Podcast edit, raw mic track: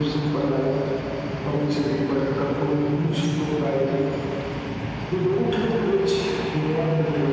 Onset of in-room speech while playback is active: none

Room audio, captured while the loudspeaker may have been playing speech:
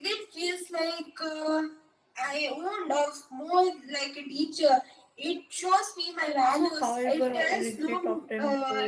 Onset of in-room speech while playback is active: 6 s

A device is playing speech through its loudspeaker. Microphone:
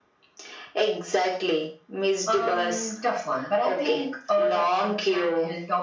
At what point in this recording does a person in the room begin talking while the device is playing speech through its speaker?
none

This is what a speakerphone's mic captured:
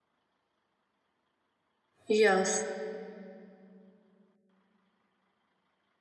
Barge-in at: 2 s

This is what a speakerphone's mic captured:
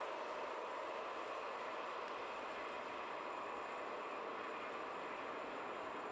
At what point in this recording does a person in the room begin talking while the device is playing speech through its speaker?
none

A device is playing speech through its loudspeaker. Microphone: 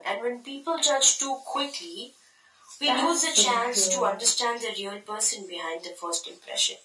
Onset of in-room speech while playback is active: 3 s

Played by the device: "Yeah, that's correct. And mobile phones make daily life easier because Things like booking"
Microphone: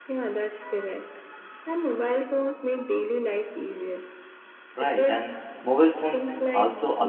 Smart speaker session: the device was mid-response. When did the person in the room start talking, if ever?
5 s

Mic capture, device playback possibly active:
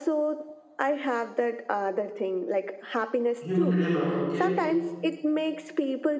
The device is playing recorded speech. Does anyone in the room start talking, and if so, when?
3 s

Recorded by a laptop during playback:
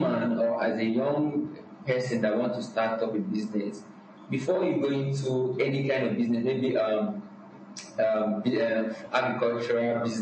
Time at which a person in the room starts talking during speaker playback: none

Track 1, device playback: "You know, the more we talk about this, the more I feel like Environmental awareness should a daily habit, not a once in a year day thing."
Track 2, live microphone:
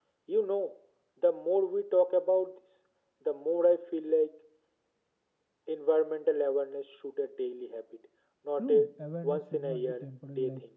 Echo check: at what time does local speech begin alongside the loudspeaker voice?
9 s

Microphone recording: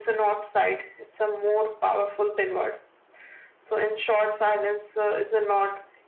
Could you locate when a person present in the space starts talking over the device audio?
none

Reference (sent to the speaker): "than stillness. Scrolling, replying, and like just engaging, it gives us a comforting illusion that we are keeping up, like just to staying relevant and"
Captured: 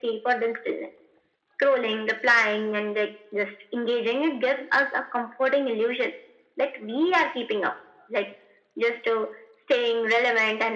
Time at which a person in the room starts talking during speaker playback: none

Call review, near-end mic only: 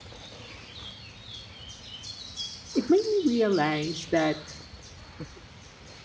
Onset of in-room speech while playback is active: 3 s

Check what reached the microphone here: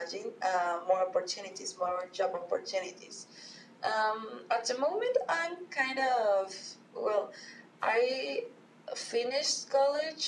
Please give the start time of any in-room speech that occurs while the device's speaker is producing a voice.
none

